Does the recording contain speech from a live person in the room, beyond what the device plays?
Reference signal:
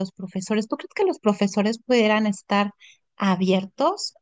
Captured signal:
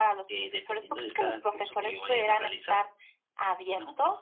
Yes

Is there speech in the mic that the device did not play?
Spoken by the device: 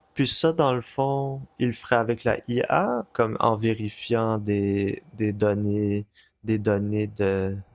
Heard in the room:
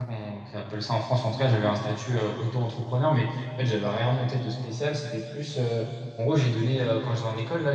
Yes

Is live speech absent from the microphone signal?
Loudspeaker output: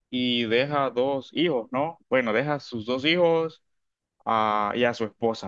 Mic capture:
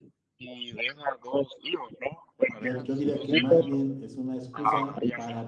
No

